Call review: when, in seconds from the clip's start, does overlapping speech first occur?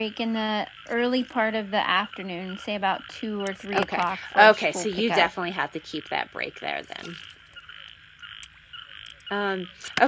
3.7 s

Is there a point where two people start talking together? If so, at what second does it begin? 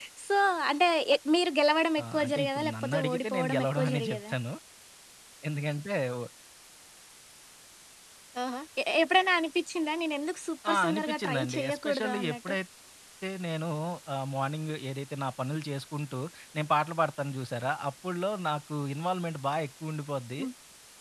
2.0 s

